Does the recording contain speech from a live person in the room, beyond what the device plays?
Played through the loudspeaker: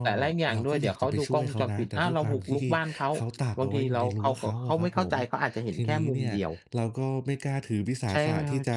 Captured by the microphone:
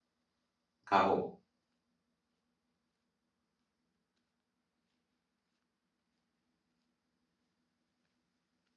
Yes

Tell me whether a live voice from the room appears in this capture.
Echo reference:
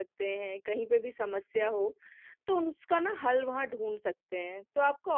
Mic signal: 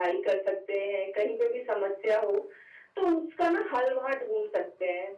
No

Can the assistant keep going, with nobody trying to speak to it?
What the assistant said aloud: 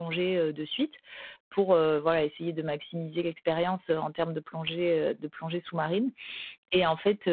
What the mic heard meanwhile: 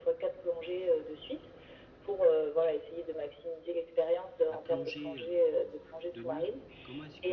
No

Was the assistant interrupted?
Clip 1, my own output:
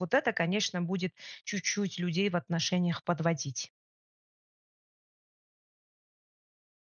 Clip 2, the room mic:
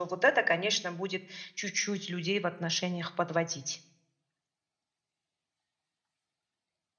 No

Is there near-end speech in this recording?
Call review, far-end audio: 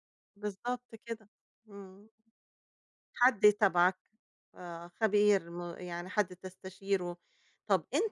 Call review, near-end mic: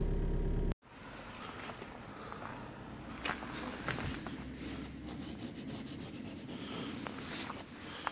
No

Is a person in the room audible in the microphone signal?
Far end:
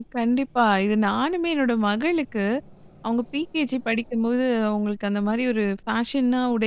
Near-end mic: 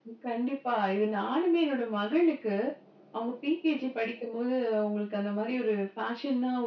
No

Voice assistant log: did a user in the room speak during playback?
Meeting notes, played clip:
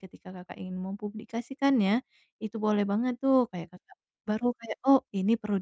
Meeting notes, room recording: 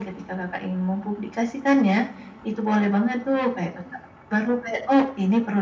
No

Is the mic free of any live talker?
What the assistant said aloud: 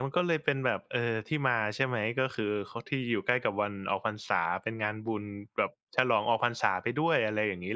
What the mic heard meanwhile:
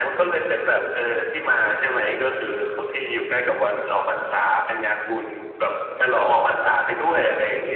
Yes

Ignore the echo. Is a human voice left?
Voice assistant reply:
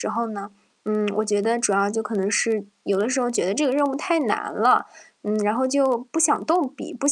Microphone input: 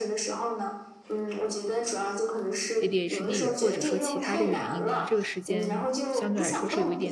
Yes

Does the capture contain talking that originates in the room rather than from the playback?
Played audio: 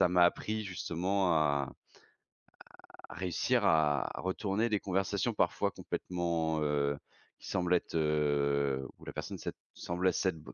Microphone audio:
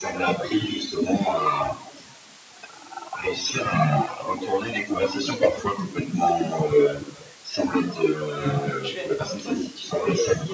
Yes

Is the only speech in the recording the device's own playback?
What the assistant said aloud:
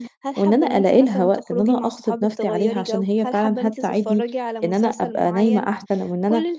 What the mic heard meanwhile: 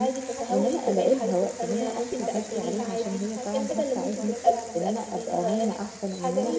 No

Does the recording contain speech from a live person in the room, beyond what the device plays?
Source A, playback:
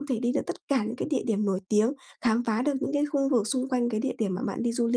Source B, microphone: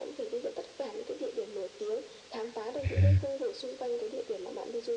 Yes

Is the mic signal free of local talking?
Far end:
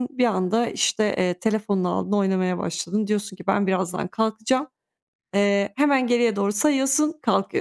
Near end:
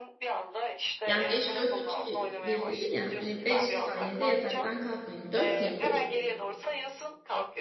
No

